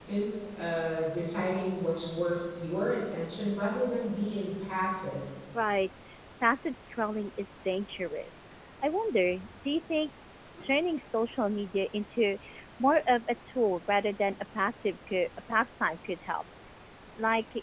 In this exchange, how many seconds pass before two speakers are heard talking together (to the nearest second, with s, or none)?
none